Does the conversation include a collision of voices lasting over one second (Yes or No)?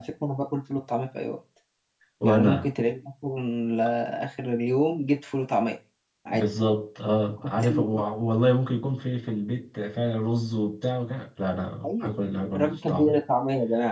Yes